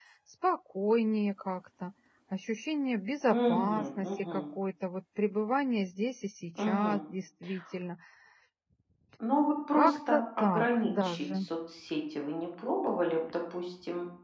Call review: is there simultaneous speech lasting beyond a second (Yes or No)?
Yes